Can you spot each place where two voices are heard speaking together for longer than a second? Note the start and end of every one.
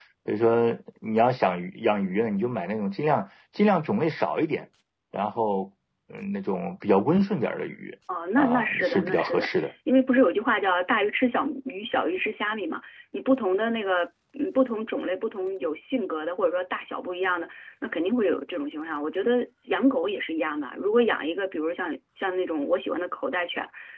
8.4-9.7

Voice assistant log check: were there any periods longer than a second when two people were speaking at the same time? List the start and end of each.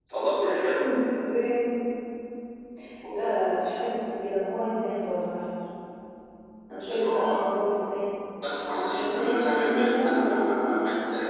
8.9-10.4

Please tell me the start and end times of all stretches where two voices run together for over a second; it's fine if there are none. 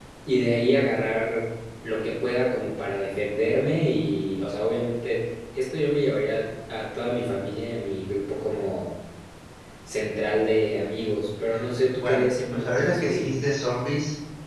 12.0-13.3

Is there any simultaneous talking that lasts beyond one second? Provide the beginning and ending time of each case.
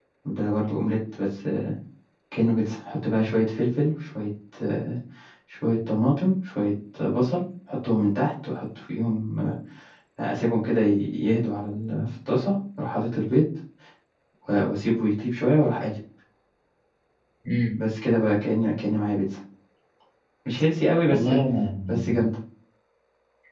none

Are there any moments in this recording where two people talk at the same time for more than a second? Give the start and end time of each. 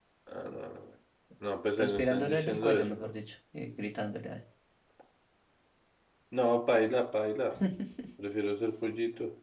1.8-3.1

